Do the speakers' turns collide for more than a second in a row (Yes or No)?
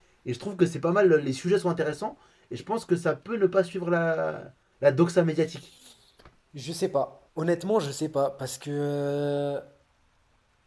No